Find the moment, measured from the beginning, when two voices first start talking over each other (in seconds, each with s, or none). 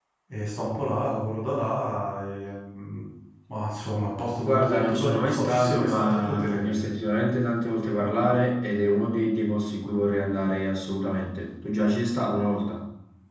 4.5 s